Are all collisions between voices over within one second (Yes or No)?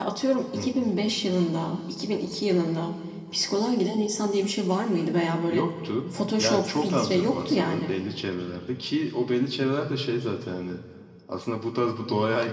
No